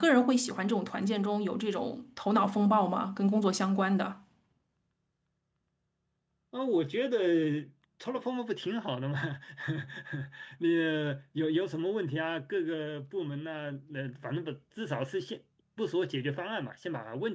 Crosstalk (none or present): none